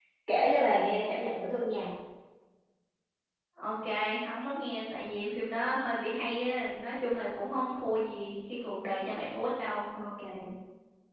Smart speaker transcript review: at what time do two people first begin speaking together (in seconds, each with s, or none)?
none